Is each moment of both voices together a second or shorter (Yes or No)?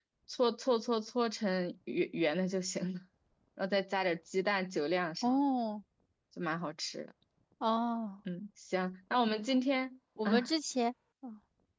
Yes